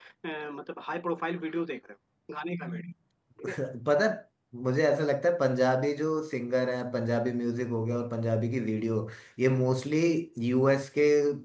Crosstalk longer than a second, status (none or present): none